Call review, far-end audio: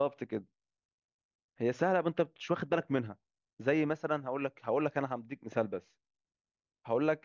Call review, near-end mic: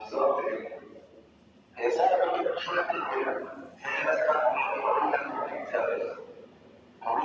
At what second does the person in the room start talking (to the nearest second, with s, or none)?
none